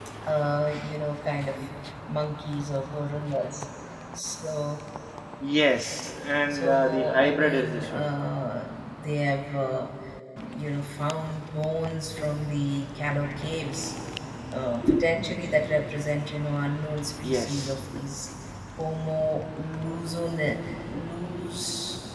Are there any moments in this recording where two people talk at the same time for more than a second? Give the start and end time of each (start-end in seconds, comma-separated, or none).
6.5-8.1